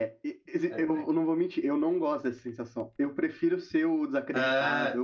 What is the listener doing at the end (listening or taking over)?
listening